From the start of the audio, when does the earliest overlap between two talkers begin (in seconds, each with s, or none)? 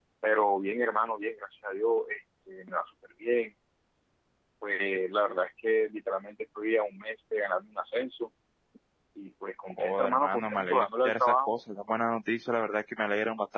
9.7 s